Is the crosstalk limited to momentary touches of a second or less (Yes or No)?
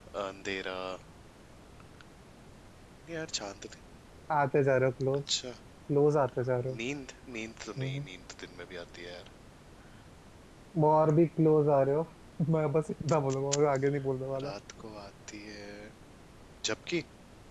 Yes